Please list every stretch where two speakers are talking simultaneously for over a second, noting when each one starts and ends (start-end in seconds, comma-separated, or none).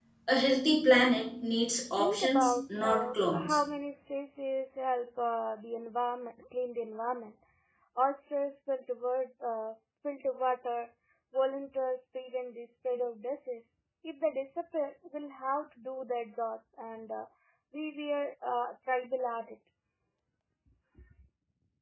2.0-3.6